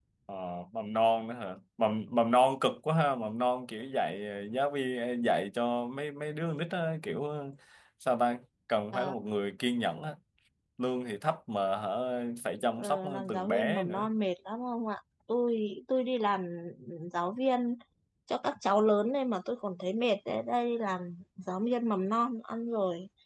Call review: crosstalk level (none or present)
present